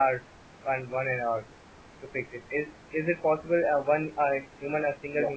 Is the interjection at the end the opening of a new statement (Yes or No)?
No